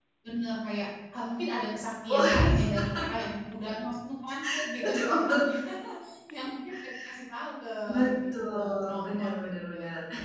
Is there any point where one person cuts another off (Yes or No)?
Yes